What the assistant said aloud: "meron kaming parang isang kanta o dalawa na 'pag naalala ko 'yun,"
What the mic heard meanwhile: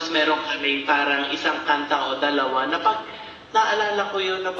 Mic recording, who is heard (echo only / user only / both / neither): echo only